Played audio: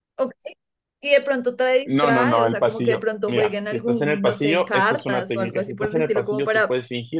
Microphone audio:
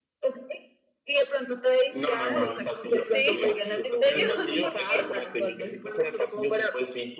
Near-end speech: present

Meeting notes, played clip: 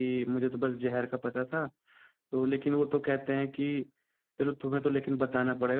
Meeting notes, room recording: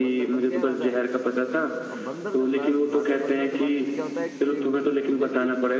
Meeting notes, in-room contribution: present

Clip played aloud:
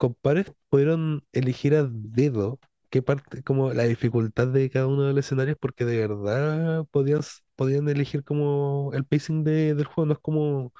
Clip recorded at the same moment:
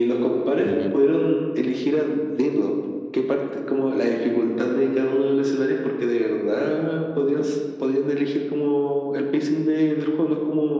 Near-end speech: present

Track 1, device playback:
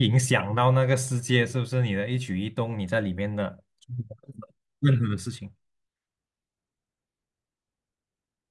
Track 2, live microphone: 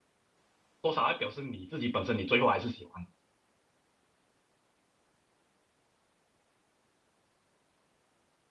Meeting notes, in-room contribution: present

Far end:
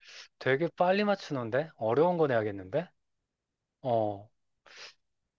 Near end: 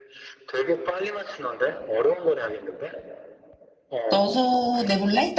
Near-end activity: present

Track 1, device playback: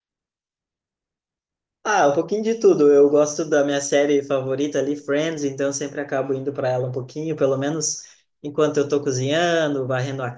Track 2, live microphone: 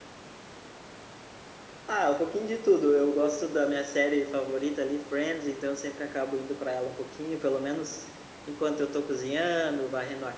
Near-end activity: none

